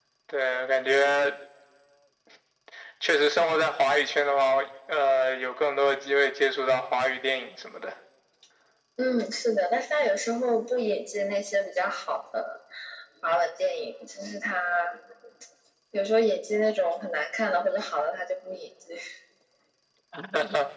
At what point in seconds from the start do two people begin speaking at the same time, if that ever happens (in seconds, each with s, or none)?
none